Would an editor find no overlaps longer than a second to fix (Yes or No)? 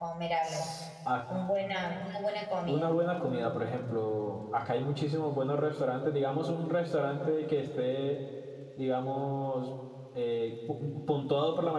Yes